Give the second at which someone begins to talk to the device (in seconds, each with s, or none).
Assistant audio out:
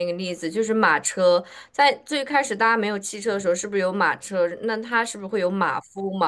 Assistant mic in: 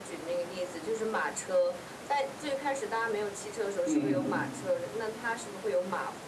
3.8 s